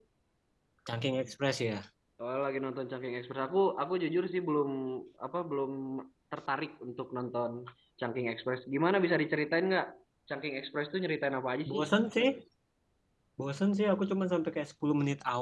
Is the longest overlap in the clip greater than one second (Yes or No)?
No